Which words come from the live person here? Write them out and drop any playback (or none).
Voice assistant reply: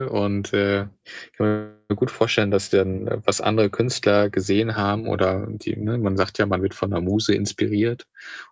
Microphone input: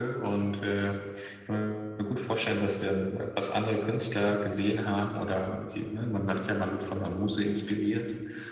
none